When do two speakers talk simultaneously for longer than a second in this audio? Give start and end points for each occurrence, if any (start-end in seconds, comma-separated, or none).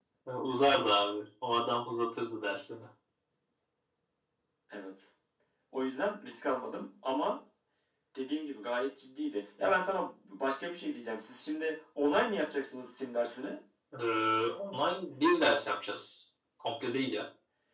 none